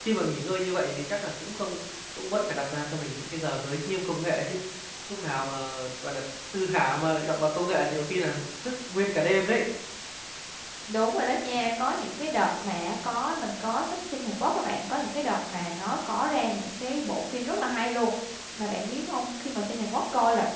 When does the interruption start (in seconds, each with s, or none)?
none